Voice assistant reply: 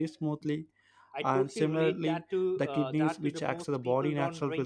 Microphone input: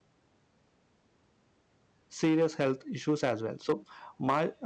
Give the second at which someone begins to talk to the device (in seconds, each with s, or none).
2.1 s